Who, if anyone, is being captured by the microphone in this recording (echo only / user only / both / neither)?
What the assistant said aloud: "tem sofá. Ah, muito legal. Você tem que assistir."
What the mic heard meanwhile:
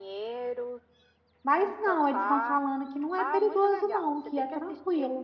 both